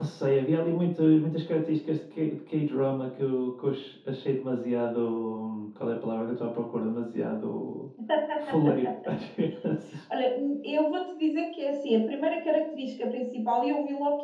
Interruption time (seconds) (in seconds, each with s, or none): none